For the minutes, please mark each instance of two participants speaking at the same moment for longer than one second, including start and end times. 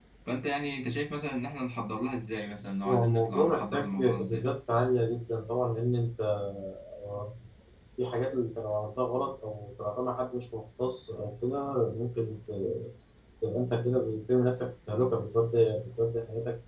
2.9-4.5

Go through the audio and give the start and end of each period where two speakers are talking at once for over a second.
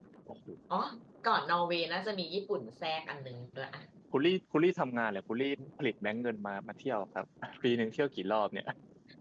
none

